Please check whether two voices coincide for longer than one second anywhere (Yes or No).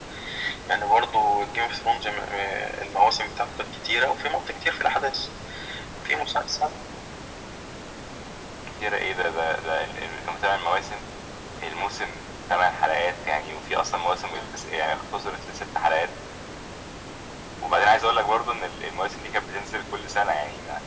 No